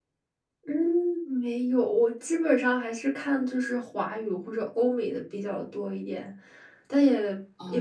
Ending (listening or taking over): listening